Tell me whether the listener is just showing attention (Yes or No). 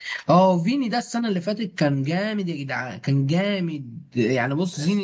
Yes